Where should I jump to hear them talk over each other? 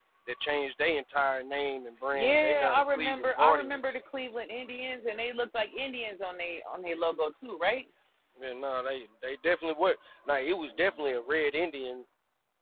2.1 s

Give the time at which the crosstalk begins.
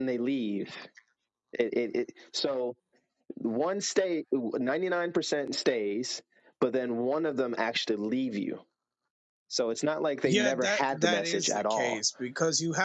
10.2 s

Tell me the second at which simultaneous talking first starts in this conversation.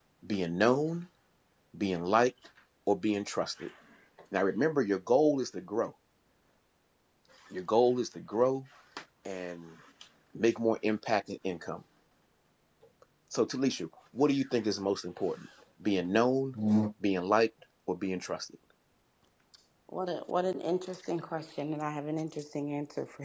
none

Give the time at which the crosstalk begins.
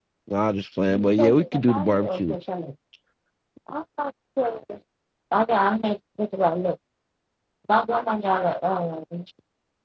0.9 s

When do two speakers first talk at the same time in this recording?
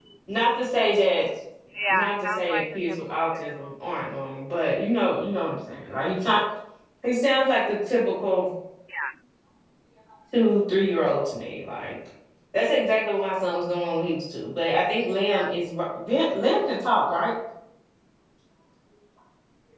1.9 s

